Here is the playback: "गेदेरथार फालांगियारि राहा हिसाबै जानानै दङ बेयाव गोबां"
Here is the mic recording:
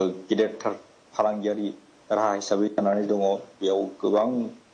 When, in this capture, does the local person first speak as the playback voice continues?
none

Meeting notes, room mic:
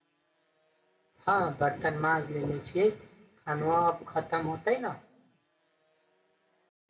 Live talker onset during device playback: 1.3 s

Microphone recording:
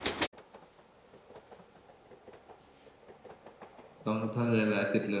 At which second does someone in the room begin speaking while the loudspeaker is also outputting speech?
4.0 s

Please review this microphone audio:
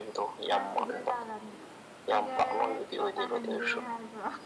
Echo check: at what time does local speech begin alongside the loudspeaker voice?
0.5 s

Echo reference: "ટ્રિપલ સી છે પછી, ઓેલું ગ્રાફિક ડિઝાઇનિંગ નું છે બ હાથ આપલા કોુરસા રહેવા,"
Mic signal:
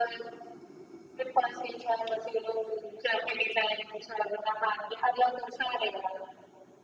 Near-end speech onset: none

